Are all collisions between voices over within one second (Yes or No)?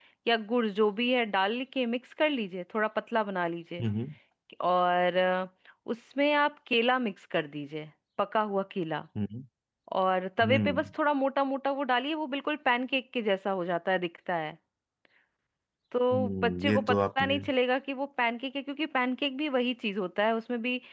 No